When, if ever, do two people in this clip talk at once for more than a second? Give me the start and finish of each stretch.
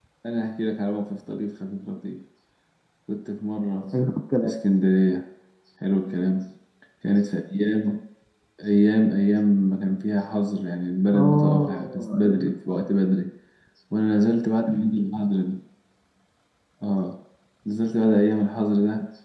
11.1-12.8

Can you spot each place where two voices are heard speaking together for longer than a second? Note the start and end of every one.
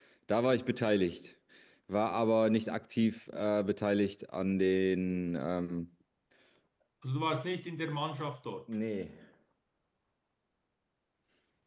none

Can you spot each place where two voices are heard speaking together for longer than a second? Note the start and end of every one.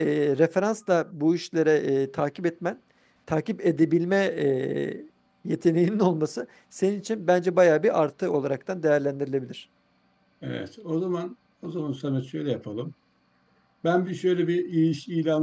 none

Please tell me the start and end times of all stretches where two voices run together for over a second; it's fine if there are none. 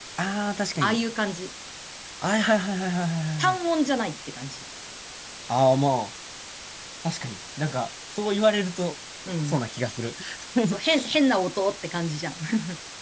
none

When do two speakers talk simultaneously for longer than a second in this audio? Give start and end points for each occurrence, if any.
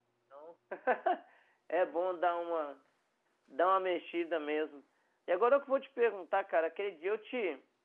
none

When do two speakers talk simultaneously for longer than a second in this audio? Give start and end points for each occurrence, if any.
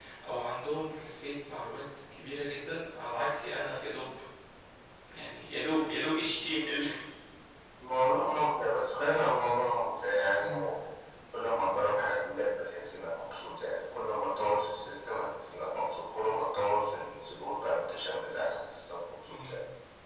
none

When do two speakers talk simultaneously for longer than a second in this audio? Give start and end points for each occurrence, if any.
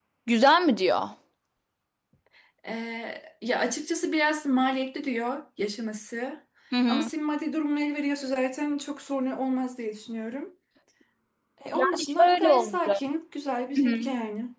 11.7-13.0

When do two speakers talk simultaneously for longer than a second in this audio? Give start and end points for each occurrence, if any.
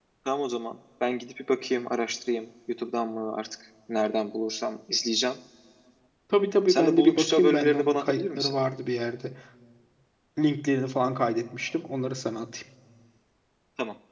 6.7-8.5

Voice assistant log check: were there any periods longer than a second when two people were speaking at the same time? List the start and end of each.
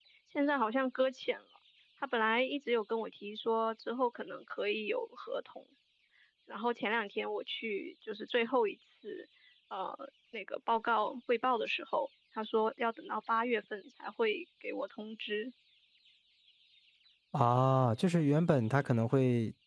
none

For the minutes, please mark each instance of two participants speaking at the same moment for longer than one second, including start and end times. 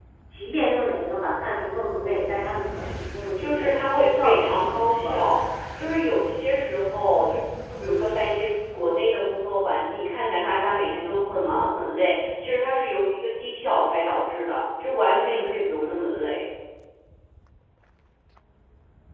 3.4-5.2

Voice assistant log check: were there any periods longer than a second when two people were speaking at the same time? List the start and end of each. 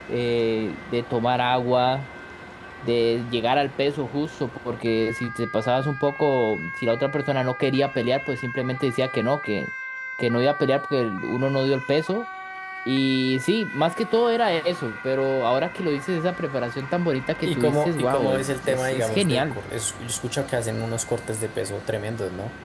17.4-19.6

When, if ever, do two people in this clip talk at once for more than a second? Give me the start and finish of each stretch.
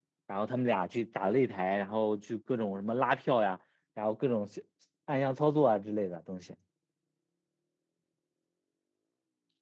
none

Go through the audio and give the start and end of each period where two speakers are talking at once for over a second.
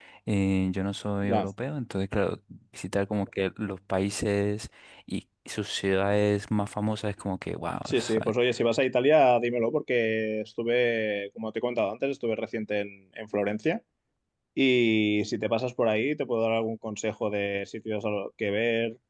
none

